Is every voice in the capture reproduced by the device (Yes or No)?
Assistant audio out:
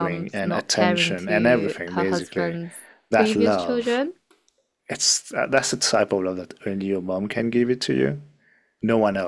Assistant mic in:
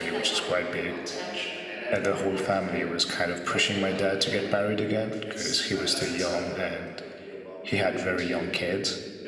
No